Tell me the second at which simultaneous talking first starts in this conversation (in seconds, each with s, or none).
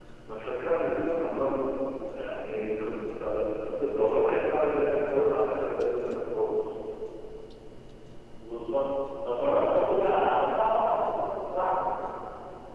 none